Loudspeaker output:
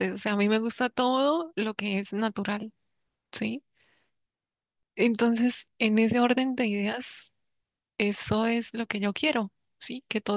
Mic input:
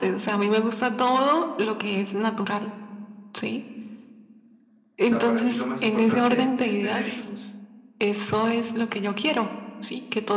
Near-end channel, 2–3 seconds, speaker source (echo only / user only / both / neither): echo only